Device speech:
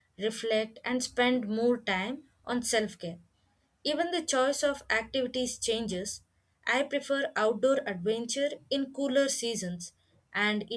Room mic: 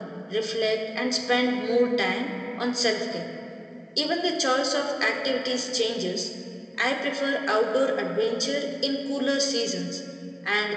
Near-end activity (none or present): none